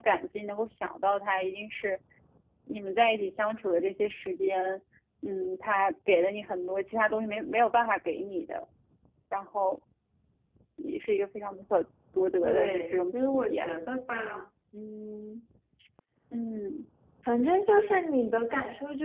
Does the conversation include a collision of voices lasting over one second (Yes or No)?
Yes